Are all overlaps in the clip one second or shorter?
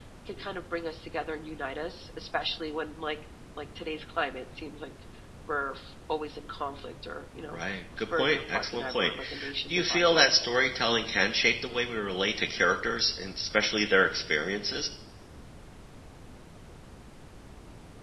No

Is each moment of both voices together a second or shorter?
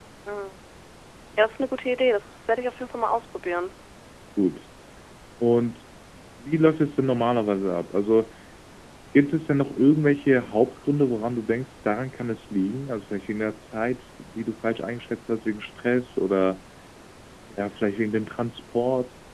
Yes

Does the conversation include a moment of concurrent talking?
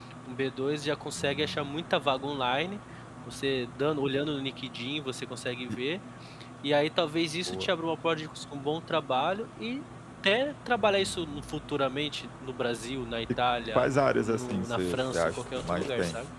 Yes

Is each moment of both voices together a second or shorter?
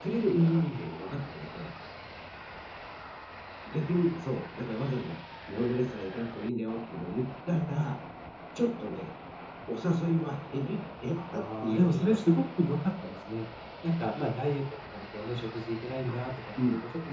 No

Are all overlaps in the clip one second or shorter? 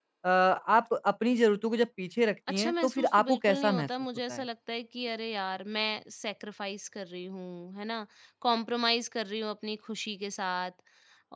No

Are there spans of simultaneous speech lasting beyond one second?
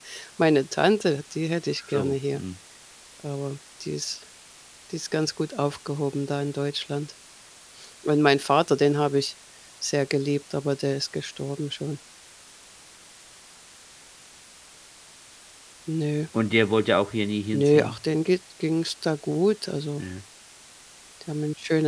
No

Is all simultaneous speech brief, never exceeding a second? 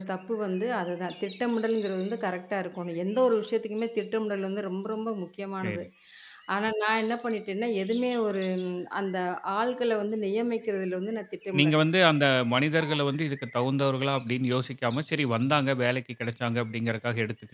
Yes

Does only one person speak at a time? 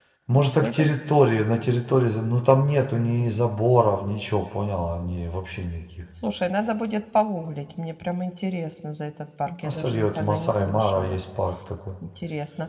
No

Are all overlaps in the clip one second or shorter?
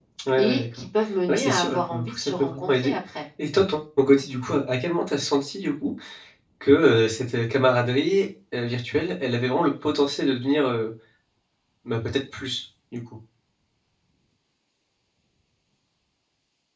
No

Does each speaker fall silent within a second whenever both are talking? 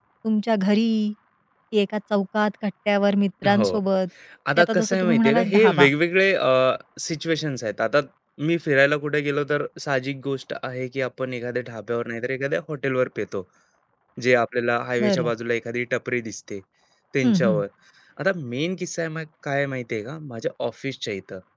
No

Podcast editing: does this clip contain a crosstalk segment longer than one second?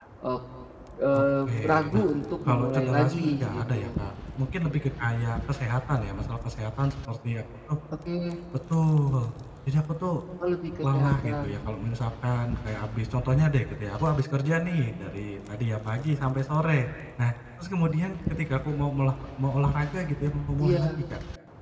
Yes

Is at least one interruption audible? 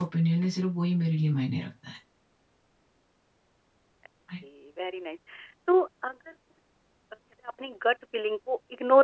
No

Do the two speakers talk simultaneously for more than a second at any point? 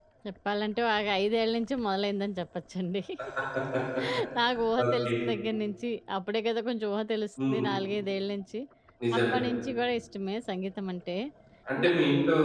No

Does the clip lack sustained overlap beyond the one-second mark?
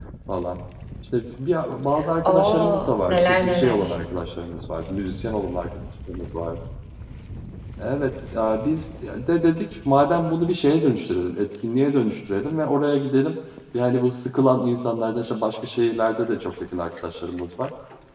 No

